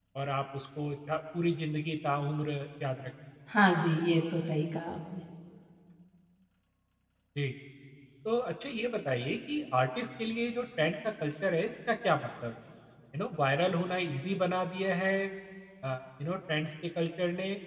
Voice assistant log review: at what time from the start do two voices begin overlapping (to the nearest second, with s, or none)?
none